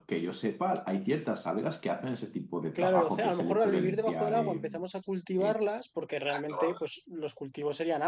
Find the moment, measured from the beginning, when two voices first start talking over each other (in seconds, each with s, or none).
2.8 s